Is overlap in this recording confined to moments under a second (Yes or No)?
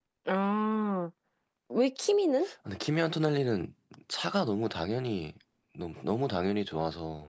Yes